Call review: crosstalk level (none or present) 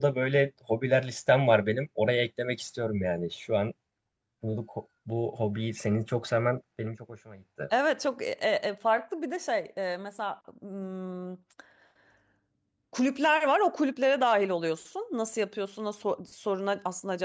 none